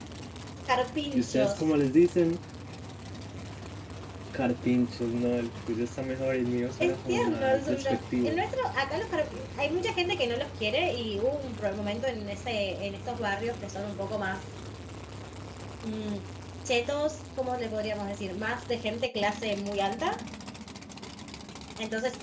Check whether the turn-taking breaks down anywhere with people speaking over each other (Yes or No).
Yes